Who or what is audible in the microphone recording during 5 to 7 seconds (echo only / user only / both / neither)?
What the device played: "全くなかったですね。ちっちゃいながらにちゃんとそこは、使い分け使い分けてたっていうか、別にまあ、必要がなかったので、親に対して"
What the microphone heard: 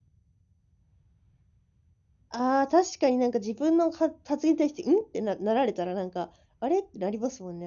user only